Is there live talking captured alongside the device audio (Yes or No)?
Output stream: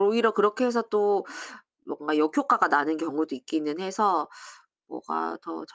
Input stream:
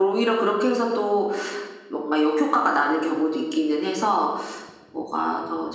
No